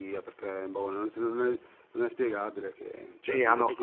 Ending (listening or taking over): taking over